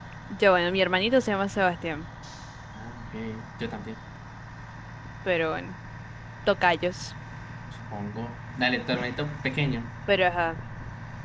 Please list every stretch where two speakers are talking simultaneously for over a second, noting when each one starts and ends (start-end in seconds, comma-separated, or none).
none